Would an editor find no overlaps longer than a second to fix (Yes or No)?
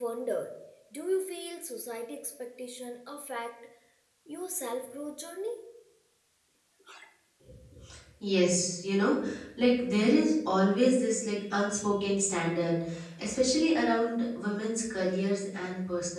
Yes